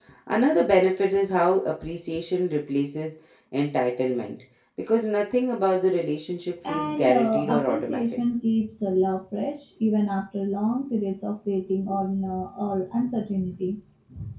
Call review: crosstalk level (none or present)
present